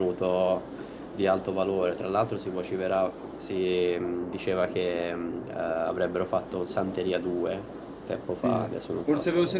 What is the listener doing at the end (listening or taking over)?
taking over